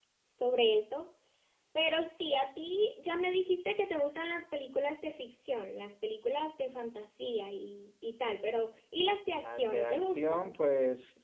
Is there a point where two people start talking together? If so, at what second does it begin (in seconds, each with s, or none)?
9.3 s